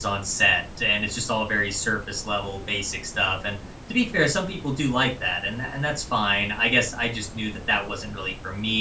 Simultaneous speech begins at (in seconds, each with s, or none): none